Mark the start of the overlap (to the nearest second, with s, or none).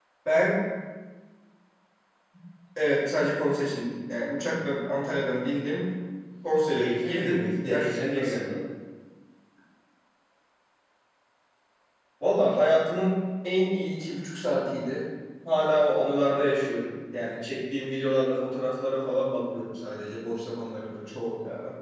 7 s